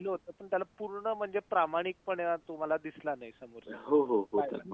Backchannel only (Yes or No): No